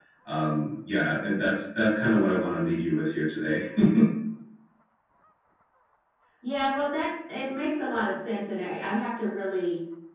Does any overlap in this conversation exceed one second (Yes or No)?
No